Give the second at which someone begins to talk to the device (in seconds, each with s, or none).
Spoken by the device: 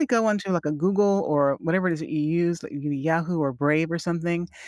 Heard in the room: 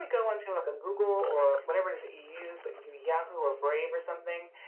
none